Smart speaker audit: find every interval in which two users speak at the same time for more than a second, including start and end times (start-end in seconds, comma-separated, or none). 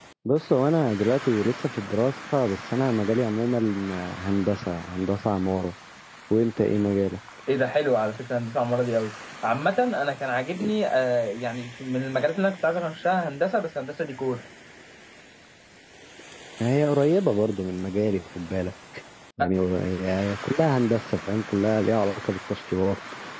none